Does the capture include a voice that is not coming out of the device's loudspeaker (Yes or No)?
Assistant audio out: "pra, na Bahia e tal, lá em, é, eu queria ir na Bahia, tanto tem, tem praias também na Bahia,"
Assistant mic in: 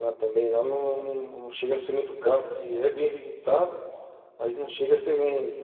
Yes